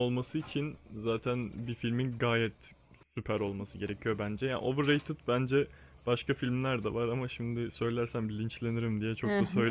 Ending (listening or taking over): taking over